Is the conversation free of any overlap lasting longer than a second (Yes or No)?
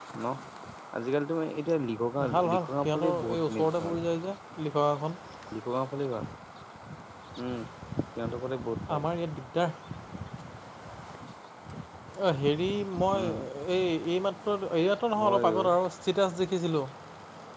No